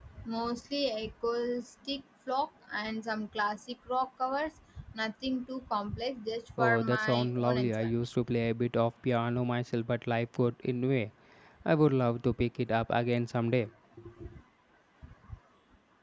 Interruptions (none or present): present